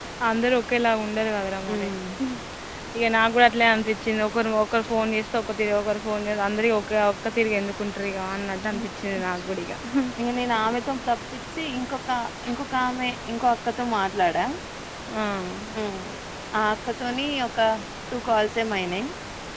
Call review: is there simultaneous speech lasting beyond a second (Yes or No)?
No